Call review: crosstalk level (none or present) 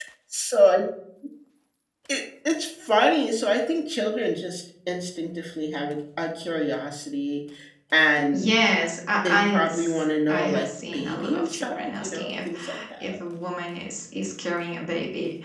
present